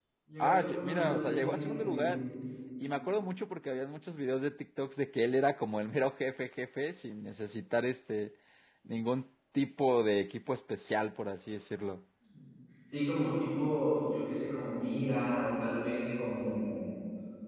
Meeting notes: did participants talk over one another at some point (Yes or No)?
Yes